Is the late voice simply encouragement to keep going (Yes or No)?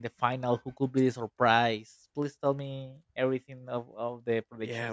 No